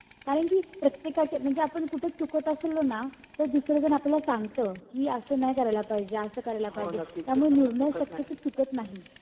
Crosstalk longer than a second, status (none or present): present